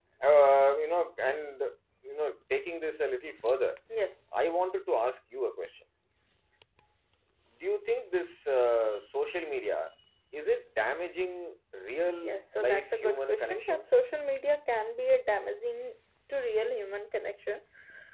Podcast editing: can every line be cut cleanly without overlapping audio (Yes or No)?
No